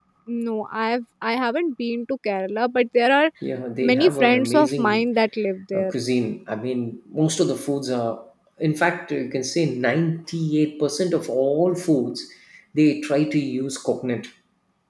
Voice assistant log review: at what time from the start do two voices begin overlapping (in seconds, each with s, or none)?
3.8 s